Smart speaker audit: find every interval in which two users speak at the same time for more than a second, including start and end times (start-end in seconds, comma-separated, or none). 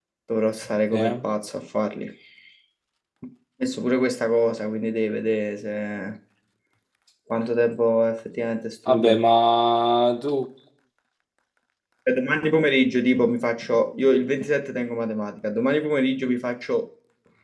none